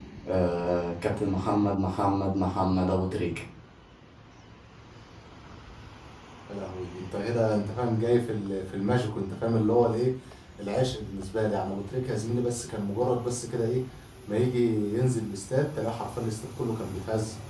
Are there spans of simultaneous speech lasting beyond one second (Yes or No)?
No